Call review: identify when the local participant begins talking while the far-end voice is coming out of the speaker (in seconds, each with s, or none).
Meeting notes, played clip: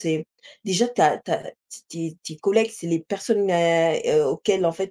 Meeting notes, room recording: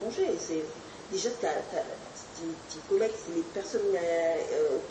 none